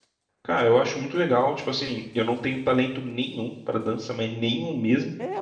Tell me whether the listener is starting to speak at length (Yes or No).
Yes